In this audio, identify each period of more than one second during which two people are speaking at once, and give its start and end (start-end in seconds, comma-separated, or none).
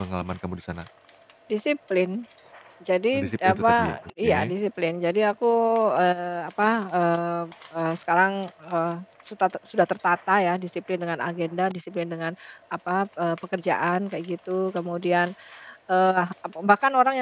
3.1-4.3